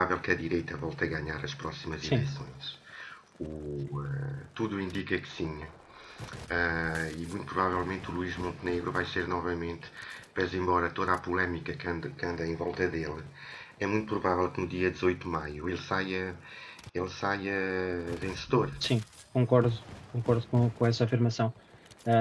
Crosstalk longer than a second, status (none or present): none